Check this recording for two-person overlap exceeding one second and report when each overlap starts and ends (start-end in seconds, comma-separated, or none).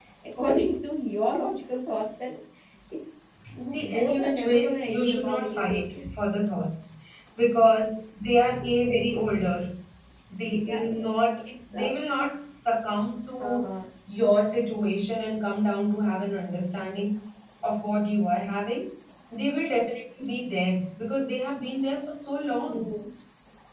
3.7-6.1